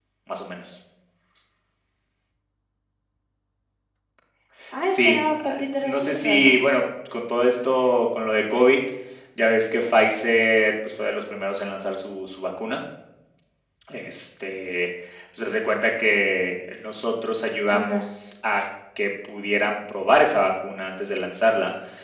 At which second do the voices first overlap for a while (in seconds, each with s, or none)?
4.8 s